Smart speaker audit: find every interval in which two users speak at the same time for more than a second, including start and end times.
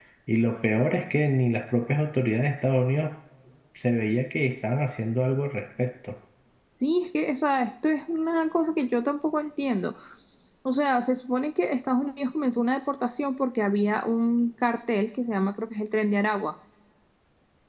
none

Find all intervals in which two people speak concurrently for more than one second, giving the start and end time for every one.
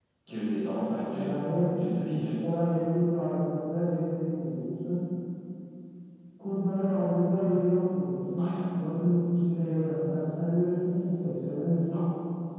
none

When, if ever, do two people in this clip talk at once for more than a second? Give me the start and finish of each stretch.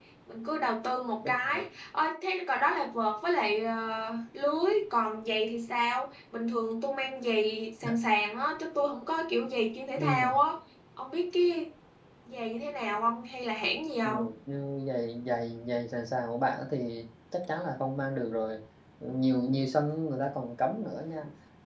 none

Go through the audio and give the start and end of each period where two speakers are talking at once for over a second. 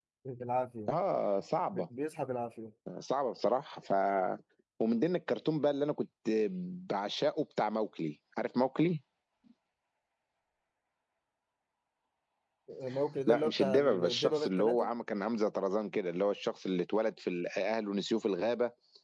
13.3-14.9

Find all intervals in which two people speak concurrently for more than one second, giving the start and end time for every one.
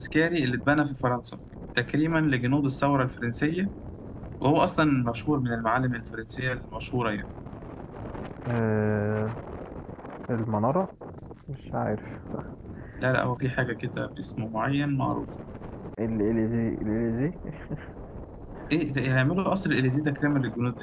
none

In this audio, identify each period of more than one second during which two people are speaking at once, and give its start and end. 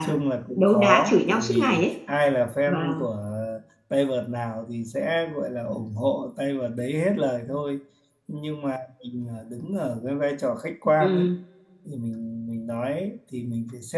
0.6-1.9

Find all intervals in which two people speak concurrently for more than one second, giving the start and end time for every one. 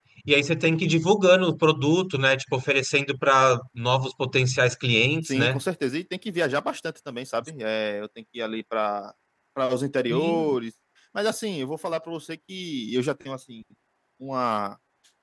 none

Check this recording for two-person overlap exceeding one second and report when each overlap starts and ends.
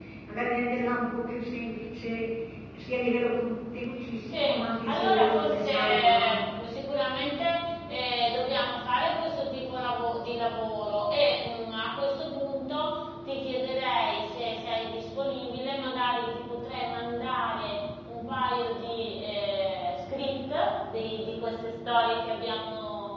4.9-6.4

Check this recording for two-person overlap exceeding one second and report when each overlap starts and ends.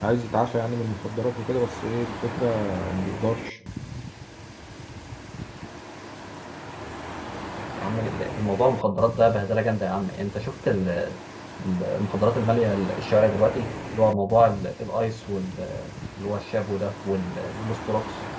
none

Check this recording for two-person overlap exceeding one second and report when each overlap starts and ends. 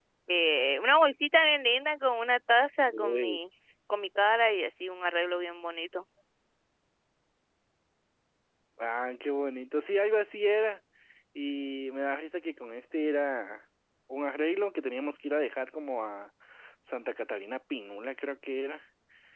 none

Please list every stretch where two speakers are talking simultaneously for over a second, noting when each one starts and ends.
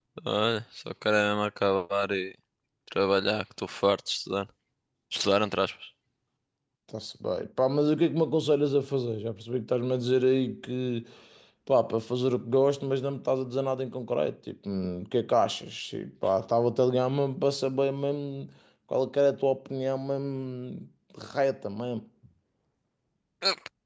none

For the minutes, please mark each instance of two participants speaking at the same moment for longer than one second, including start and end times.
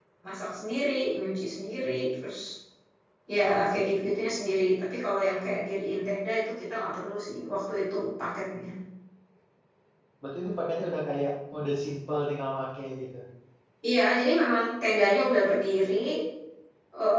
none

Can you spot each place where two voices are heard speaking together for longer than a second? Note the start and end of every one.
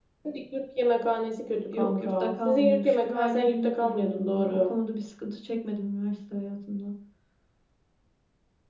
1.8-4.7

